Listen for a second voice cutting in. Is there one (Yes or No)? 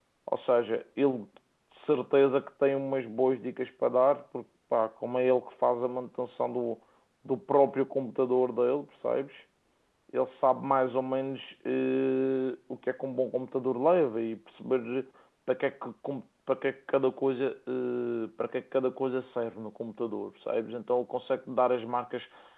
No